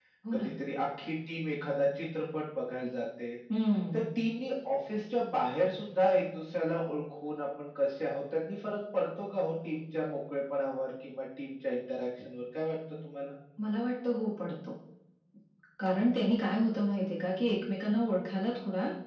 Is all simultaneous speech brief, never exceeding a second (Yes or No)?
Yes